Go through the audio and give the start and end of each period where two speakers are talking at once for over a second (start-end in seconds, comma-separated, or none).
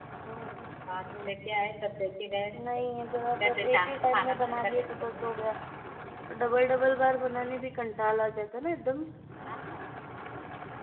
3.4-5.4